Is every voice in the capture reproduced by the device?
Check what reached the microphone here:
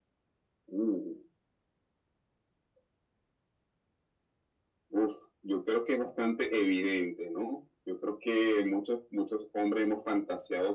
Yes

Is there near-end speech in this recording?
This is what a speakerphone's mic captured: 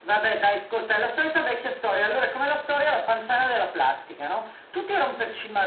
No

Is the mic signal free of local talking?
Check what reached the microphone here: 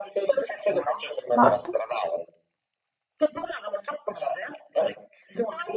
No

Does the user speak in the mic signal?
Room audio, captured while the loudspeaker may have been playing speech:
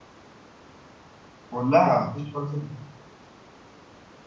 Yes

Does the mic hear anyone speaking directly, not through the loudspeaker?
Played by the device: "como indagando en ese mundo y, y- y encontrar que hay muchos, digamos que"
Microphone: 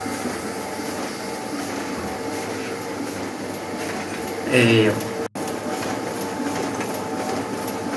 Yes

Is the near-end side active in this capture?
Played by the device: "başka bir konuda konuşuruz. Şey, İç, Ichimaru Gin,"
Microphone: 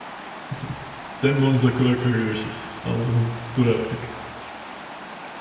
Yes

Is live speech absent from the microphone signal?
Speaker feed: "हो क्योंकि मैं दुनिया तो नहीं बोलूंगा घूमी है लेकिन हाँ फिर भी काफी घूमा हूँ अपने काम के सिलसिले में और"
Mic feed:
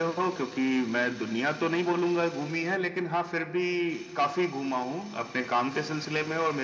Yes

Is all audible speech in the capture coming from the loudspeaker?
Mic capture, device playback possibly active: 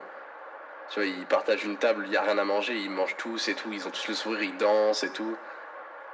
Yes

